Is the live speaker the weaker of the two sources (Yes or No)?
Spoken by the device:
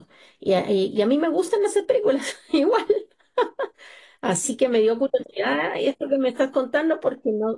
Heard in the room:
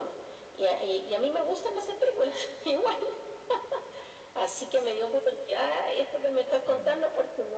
Yes